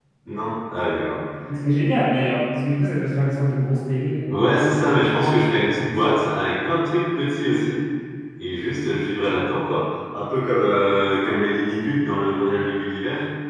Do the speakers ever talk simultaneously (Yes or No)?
No